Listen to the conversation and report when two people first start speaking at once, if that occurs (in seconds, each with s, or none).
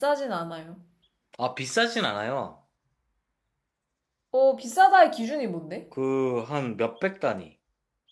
none